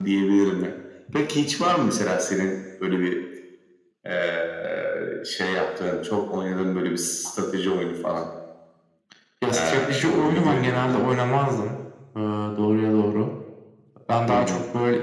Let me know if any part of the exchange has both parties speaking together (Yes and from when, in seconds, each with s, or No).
Yes, from 9.5 s